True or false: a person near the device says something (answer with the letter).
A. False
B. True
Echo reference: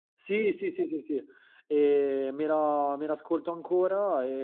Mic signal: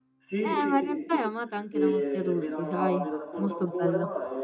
B